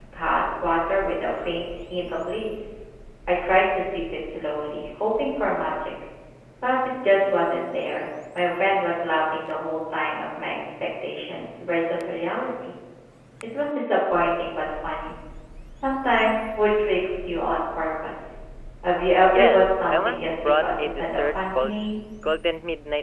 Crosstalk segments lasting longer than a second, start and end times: 19.3-21.8

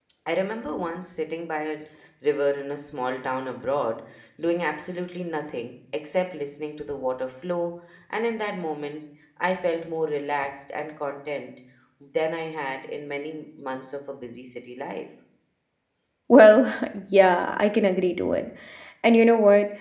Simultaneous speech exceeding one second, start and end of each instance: none

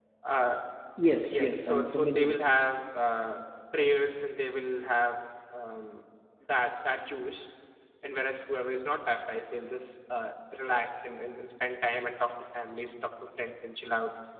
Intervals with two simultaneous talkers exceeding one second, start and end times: 1.2-2.5

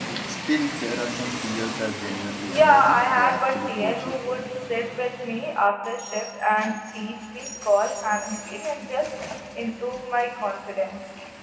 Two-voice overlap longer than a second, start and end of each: 2.5-4.2

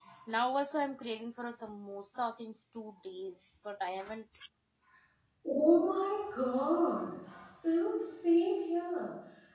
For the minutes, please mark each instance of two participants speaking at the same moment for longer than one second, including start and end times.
none

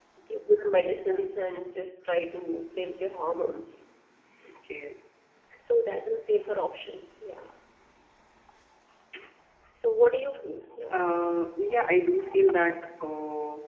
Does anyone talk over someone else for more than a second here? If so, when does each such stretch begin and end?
none

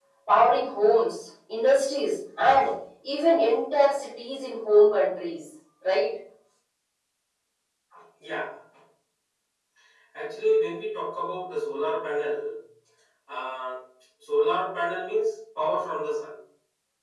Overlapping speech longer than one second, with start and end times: none

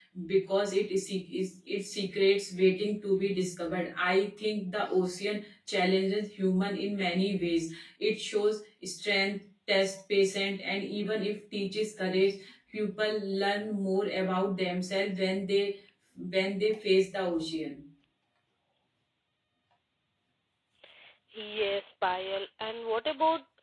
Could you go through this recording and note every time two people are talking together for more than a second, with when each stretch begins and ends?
none

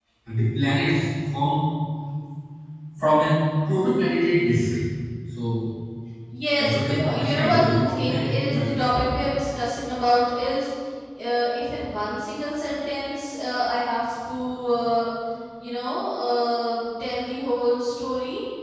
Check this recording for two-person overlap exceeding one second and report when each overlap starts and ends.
6.6-8.7

